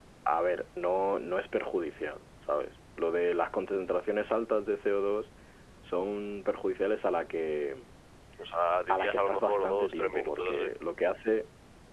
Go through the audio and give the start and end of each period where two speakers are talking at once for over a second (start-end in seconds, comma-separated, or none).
8.9-10.7